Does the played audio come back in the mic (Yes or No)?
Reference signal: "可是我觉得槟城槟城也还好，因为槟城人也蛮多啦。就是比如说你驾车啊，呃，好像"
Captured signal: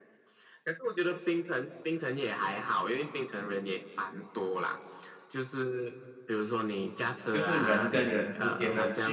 Yes